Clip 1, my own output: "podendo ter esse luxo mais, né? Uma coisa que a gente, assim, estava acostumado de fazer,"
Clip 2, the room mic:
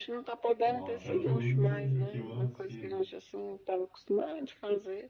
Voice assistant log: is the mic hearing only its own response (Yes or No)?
No